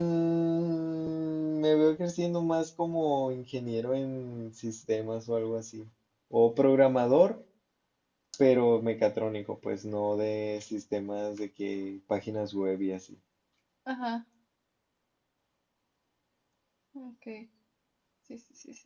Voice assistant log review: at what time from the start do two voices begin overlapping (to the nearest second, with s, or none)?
none